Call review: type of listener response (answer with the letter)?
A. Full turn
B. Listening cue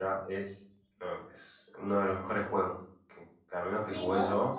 A